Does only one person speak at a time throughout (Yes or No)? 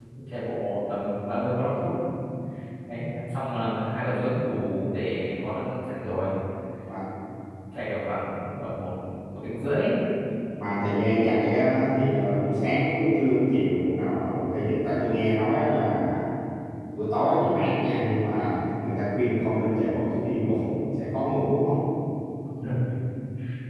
Yes